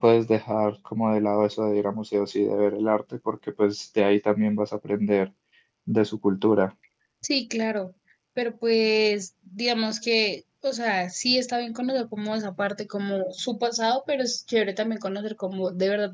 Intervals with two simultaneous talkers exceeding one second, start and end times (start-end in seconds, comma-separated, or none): none